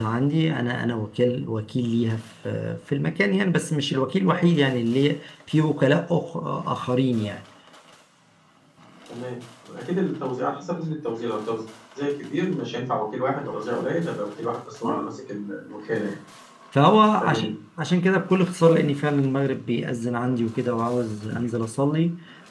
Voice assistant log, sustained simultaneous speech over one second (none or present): none